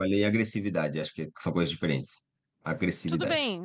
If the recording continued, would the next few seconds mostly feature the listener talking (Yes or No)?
Yes